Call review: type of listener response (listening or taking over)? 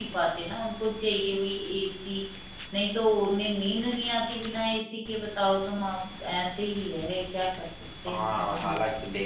taking over